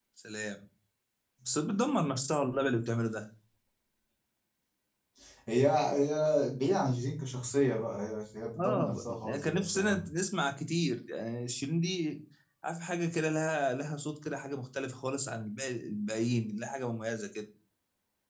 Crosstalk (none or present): present